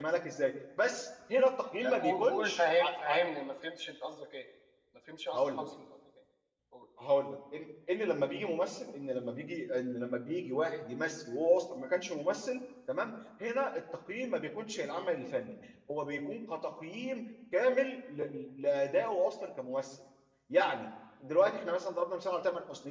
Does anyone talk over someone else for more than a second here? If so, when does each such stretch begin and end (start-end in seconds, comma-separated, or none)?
1.8-3.2